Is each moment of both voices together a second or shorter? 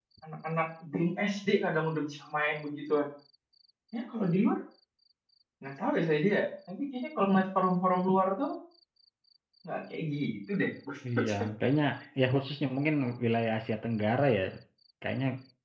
Yes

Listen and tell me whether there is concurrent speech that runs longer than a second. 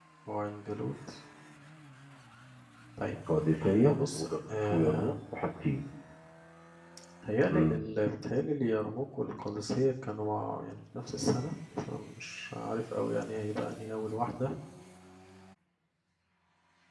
Yes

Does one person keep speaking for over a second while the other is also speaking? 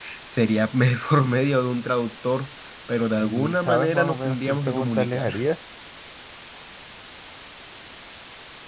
Yes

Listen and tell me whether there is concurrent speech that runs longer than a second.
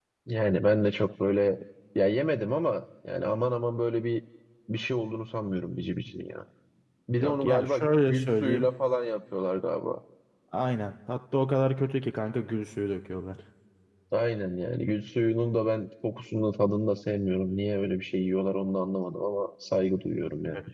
Yes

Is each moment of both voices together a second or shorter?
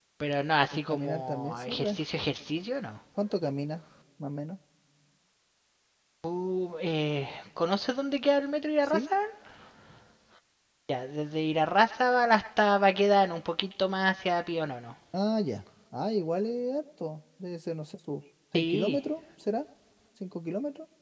No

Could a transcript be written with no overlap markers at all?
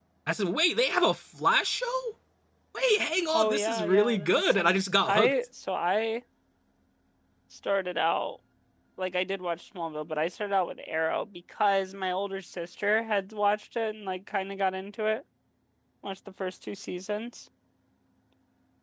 No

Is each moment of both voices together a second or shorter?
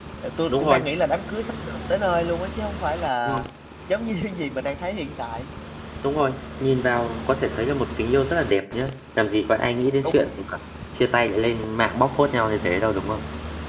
Yes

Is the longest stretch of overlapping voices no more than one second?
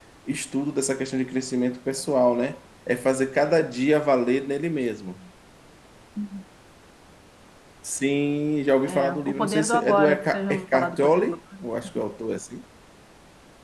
No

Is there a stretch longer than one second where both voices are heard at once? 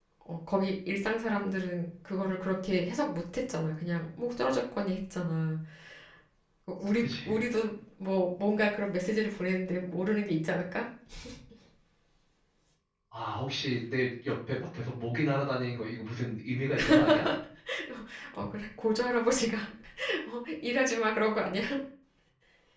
No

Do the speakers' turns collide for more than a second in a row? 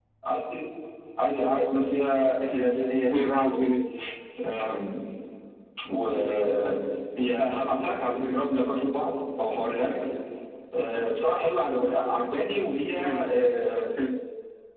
No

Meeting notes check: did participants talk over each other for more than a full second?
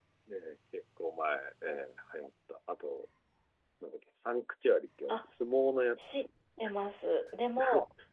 No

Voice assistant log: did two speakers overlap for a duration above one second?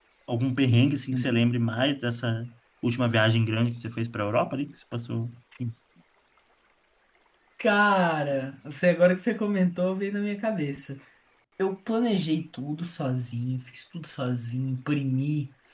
No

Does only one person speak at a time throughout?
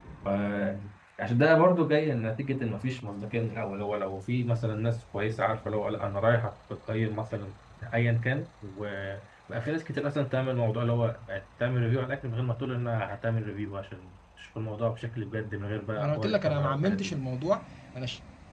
No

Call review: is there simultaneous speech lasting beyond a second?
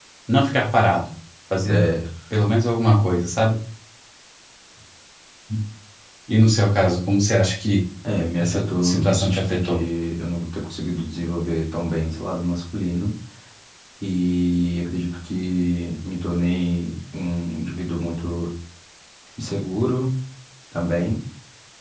Yes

